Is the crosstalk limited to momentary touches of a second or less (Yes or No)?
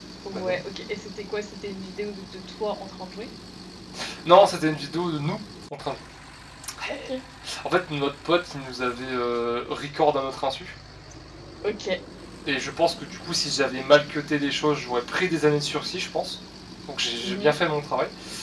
Yes